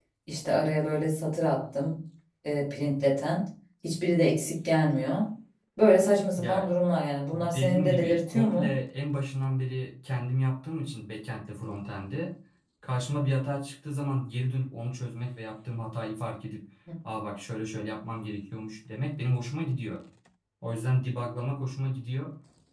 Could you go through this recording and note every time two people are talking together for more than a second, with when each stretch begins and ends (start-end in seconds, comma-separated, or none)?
7.3-8.7